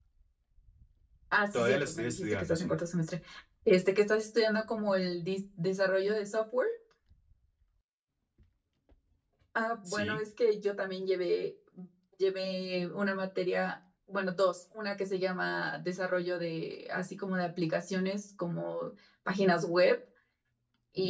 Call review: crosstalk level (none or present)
present